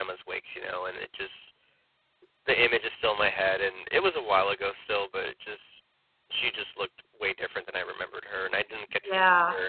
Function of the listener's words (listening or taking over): taking over